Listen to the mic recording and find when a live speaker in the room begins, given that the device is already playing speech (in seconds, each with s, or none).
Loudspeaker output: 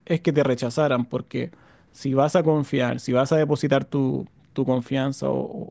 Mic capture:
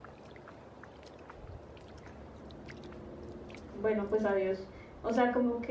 3.7 s